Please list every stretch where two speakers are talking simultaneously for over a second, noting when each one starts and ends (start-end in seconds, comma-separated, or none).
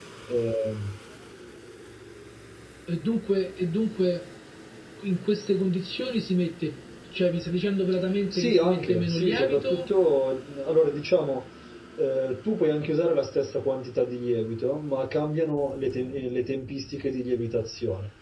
8.3-9.9